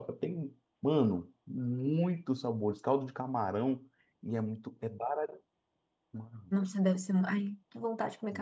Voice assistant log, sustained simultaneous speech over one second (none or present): none